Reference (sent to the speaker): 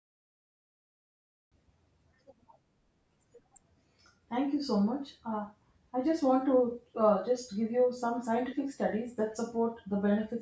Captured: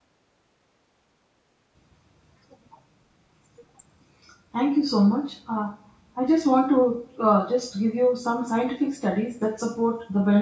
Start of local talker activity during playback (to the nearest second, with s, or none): none